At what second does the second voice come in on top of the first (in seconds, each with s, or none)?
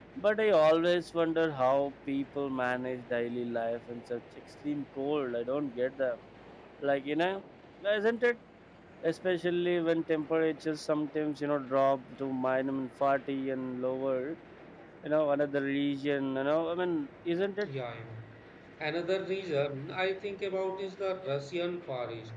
none